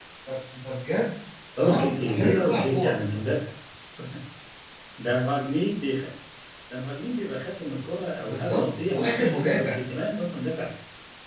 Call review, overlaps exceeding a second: present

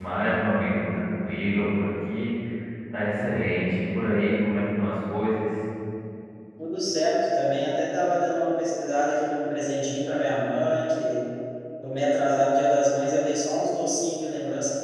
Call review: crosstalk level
none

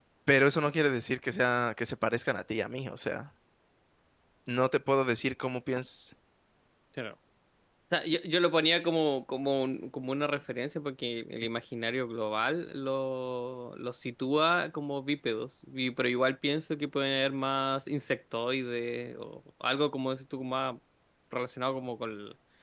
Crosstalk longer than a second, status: none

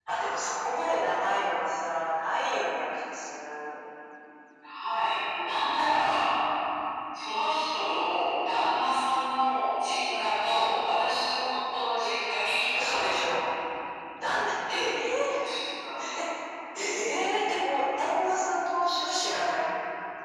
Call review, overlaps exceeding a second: none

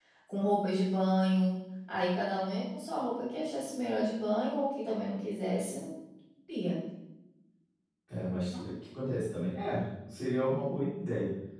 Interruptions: none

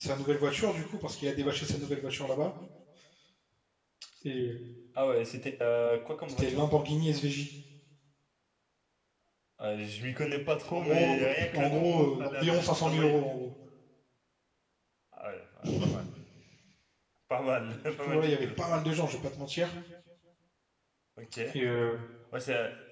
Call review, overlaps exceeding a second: present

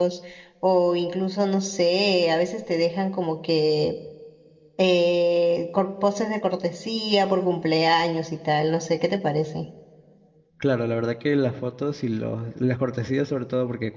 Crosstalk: none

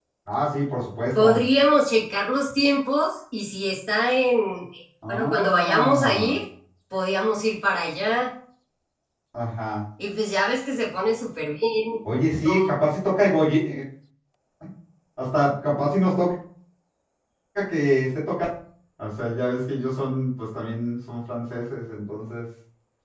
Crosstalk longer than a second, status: present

